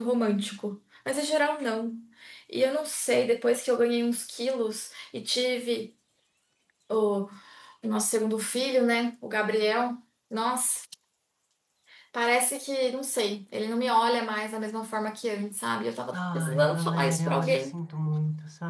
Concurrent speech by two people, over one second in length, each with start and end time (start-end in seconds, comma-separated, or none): 16.1-17.7